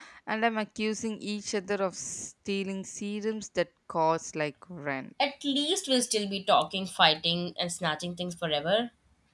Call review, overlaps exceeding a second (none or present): none